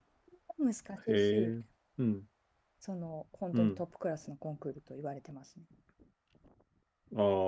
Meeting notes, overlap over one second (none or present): none